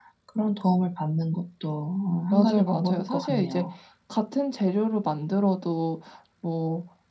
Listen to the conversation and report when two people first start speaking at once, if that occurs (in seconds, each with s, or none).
2.3 s